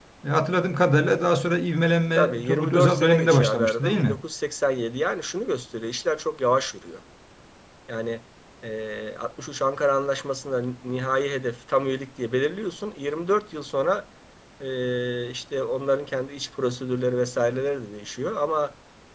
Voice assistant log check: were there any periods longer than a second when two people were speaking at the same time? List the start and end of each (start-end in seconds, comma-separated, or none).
2.2-4.2